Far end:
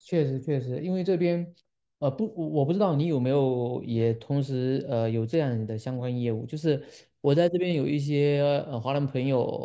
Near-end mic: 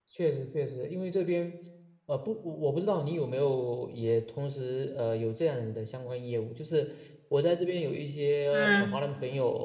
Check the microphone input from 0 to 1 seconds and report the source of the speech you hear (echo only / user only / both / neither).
echo only